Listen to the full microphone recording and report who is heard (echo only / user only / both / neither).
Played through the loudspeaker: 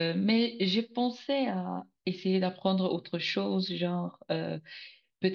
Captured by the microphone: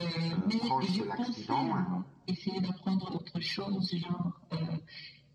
both